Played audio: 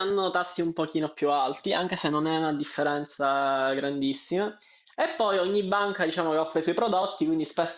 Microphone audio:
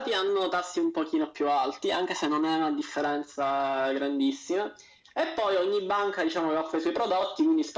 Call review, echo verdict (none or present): present